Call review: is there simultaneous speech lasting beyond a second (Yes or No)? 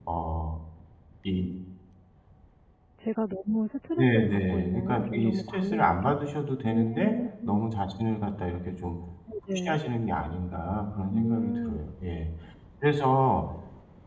Yes